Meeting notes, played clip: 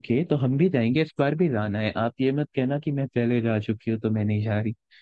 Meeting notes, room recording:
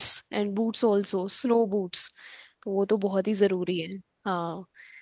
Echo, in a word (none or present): none